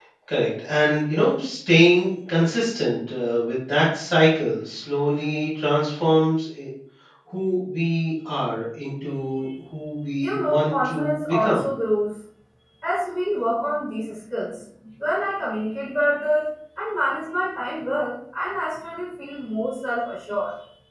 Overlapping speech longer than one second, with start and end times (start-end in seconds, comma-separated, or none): 10.2-11.6